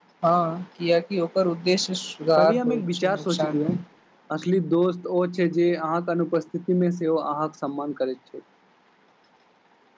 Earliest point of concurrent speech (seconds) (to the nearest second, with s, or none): 2 s